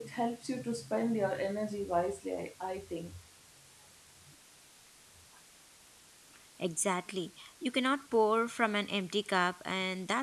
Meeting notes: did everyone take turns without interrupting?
Yes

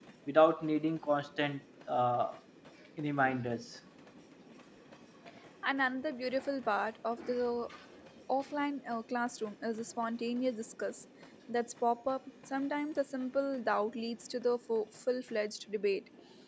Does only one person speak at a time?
Yes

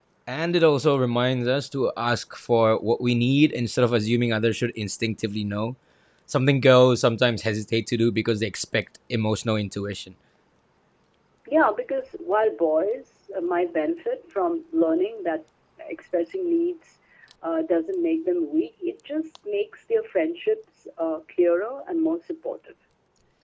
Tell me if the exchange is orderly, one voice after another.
Yes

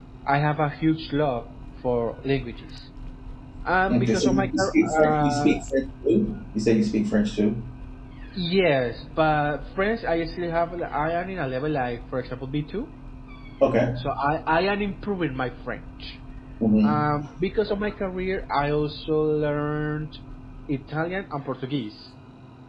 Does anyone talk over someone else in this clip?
Yes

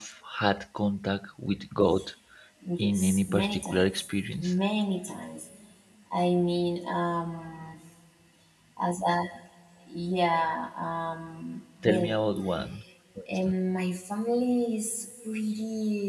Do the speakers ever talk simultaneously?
Yes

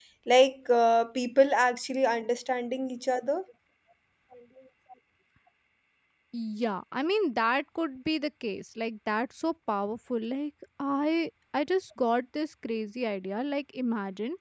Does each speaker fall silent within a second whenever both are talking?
Yes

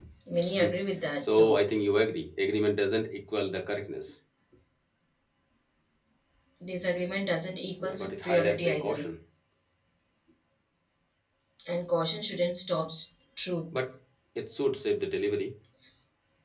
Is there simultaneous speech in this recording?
Yes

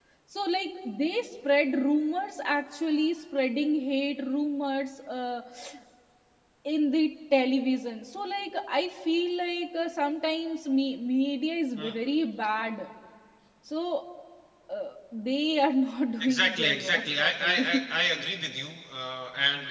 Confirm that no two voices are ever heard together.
No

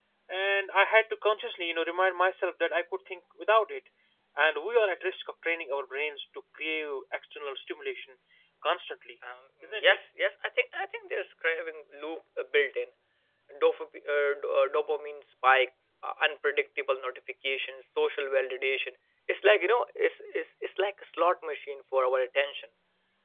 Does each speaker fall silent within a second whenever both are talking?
Yes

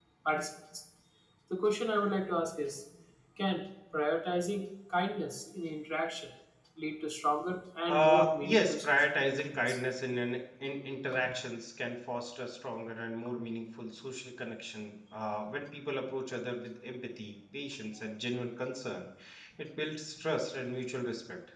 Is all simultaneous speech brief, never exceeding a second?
No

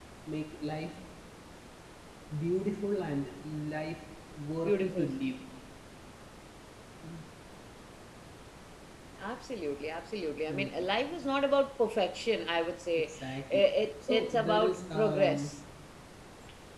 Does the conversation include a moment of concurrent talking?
Yes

